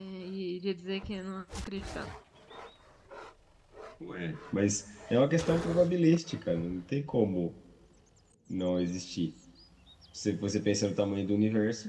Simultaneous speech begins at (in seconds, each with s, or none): none